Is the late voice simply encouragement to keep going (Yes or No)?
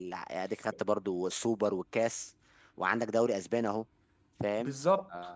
No